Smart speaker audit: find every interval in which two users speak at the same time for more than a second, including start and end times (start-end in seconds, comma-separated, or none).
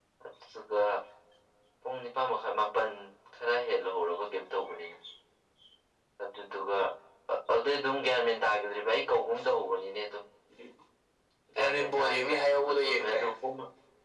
11.6-13.3